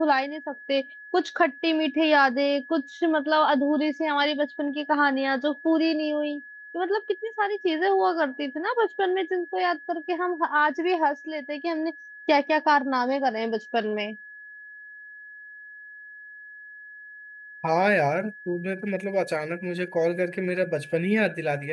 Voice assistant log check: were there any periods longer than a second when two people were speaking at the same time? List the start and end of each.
none

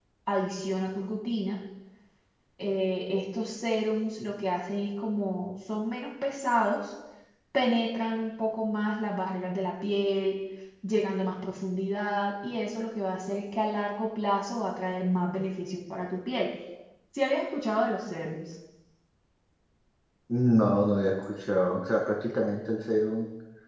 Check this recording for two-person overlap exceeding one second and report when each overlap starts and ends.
none

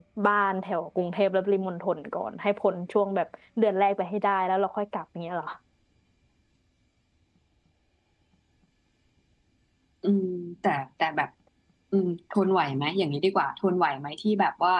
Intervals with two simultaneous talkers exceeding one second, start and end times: none

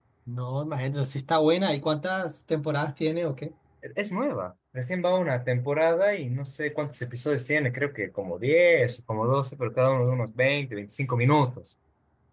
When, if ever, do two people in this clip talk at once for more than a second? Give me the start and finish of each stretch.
none

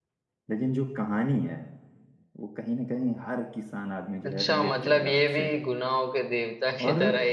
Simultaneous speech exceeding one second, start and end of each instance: 4.3-5.5

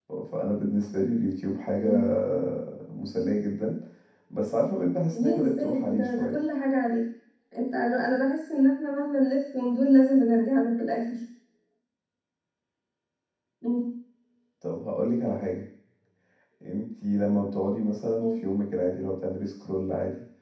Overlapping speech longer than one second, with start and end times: 5.1-6.4

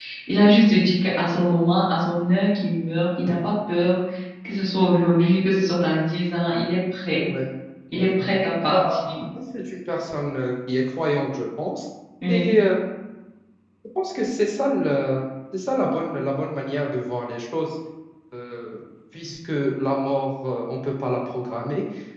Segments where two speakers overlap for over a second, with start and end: none

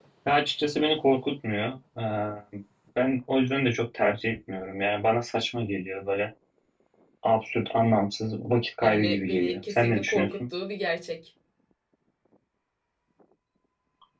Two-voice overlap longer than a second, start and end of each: 8.8-10.3

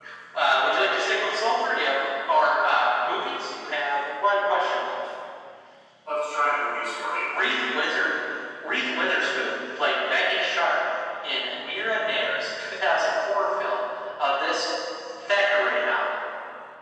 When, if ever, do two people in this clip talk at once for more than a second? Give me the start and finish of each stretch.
none

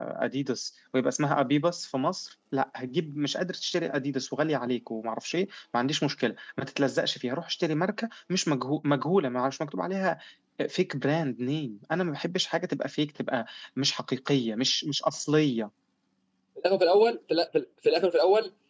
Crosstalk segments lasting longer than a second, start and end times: none

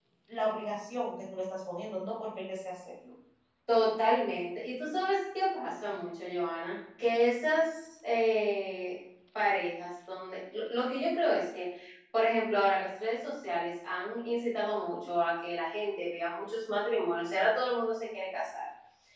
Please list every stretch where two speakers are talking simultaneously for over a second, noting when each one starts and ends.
none

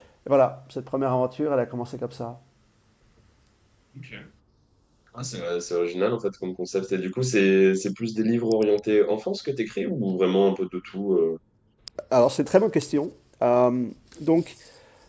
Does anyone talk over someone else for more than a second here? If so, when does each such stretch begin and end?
none

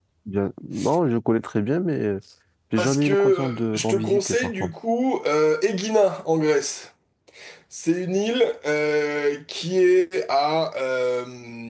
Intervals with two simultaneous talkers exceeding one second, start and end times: 2.8-4.7

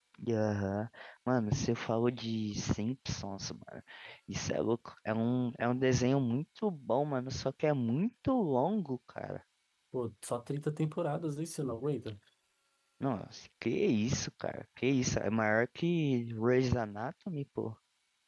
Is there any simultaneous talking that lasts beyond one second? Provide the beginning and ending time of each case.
none

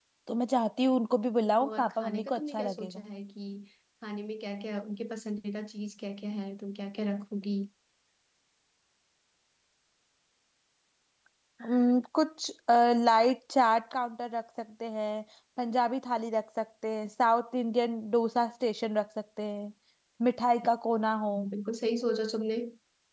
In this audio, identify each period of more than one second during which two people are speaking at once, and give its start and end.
1.6-3.1

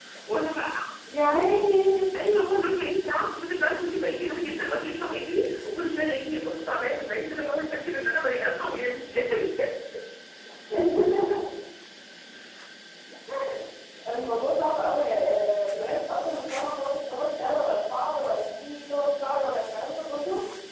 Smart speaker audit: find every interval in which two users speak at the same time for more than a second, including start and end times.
none

